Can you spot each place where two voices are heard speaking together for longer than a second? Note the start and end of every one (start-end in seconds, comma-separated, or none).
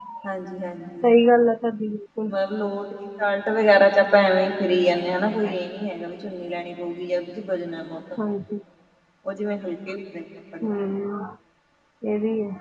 none